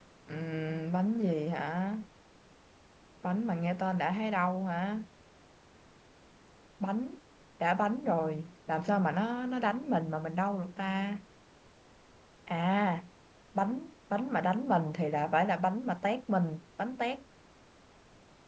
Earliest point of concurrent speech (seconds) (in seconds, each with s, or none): none